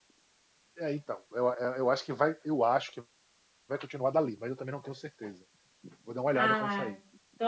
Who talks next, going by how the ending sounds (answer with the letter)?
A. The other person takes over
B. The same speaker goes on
A